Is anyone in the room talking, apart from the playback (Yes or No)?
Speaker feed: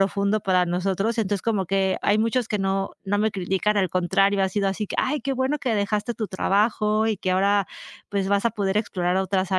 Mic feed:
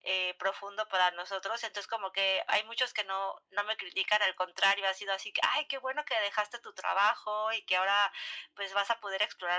No